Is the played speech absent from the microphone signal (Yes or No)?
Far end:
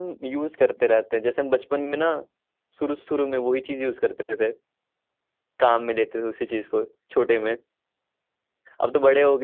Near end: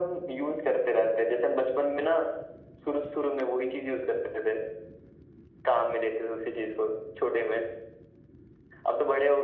No